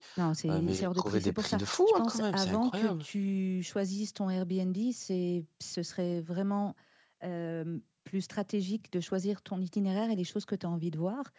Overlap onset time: 1 s

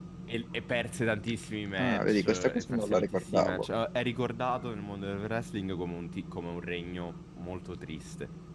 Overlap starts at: 2 s

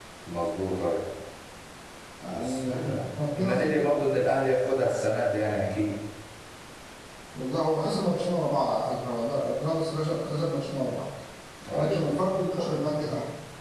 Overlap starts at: 2 s

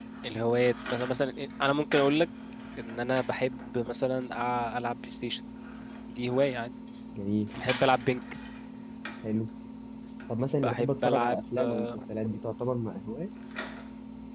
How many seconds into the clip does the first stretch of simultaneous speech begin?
11 s

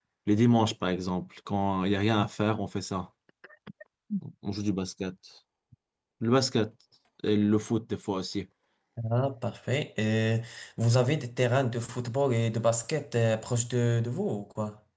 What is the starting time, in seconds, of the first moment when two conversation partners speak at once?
none

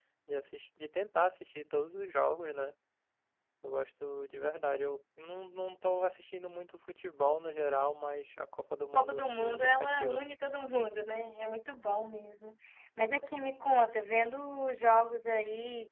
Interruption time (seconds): 9 s

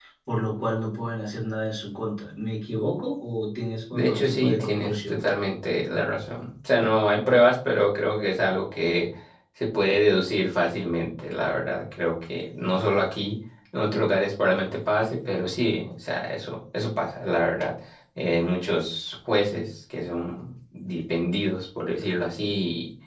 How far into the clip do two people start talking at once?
4 s

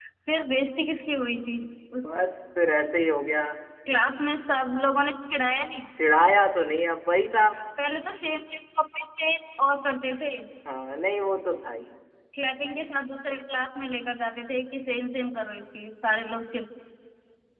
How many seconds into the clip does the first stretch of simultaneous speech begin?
none

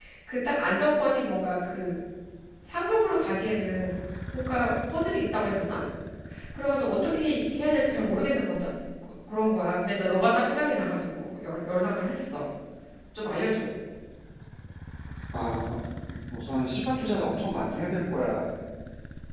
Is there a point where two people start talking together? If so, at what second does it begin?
none

